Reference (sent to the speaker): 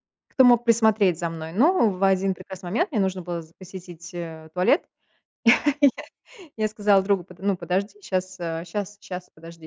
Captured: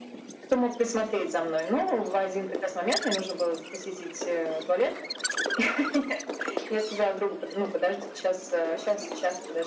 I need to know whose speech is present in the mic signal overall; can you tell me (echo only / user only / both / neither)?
echo only